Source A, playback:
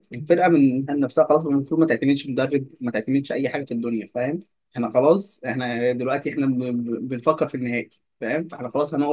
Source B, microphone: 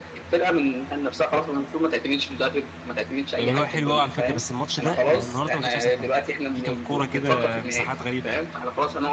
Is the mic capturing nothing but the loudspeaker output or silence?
No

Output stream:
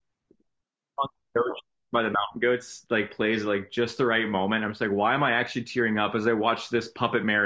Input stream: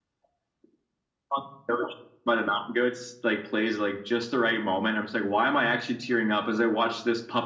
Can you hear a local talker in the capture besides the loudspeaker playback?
No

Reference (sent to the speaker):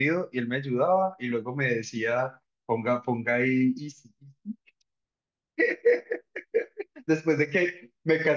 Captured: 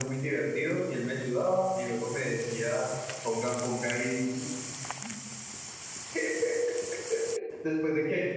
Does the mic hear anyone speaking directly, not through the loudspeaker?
No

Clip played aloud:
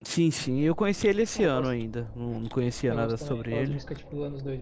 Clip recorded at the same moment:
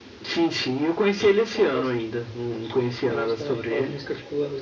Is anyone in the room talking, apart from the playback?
No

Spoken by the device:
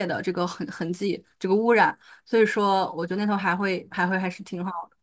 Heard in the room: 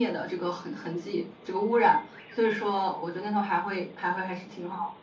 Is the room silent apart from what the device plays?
Yes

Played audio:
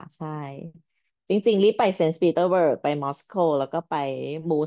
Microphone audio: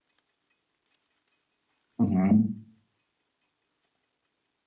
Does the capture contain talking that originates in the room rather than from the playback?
Yes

